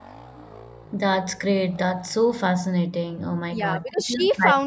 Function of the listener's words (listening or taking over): taking over